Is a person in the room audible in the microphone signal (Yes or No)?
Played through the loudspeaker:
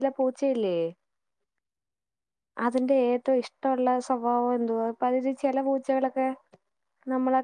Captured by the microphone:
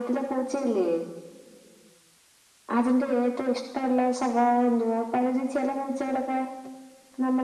No